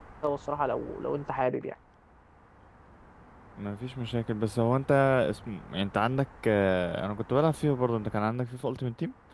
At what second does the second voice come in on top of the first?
none

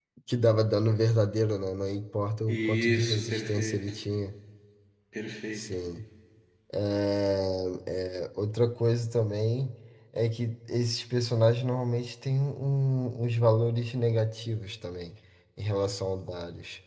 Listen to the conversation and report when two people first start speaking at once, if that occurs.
2.5 s

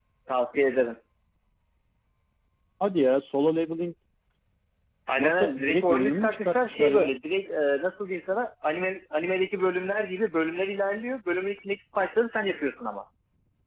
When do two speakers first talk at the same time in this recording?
5.2 s

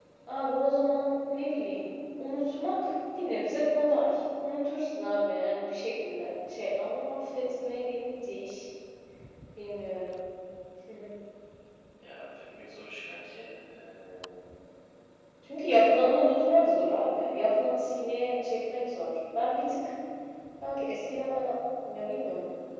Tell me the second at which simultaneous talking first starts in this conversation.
none

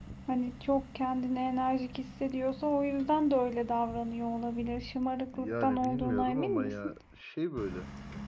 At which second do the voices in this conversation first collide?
5.3 s

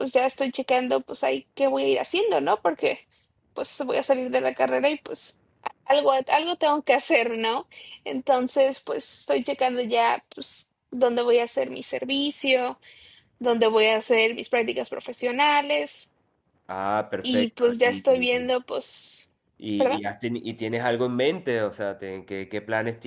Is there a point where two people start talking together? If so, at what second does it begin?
17.2 s

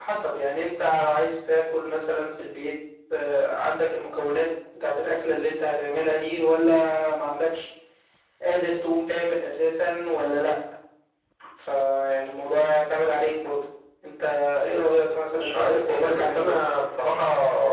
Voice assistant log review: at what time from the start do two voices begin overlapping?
15.2 s

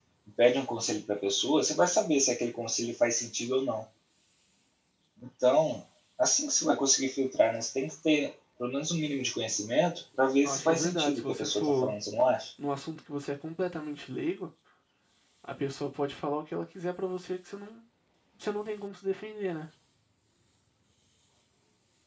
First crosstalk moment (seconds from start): 10.4 s

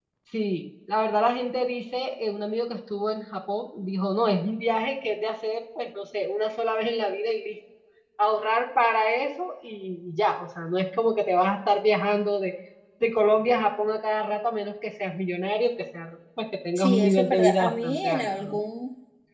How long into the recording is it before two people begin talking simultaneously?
16.8 s

